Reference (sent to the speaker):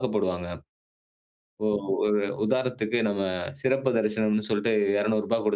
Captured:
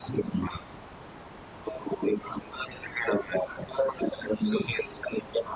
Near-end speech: none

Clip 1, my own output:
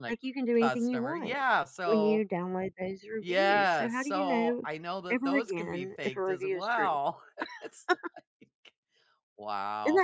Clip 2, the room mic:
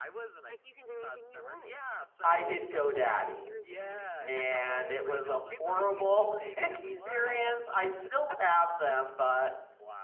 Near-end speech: present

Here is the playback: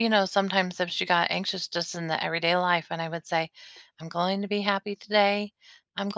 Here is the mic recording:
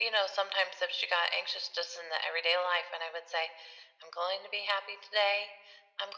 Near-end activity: none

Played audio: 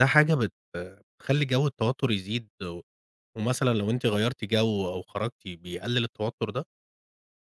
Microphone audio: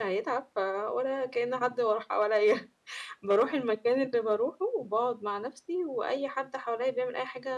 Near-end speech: present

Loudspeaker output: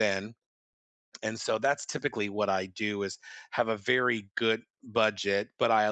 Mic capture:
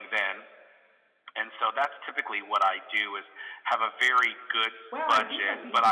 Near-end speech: present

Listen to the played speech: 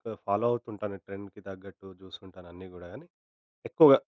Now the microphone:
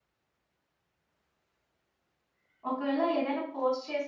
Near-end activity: present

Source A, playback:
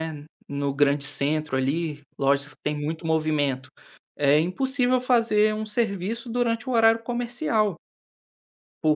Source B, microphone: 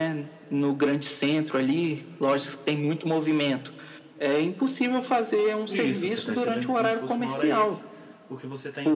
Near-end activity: present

